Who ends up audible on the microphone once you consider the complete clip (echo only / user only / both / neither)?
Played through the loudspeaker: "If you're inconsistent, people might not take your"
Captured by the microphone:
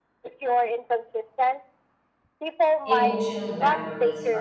both